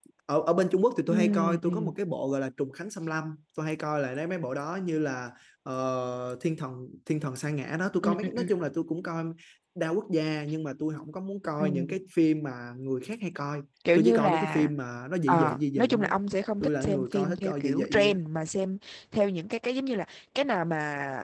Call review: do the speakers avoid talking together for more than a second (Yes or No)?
No